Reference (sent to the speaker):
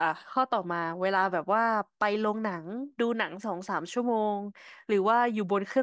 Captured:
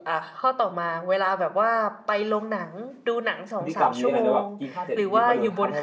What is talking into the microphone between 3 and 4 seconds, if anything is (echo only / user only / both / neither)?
both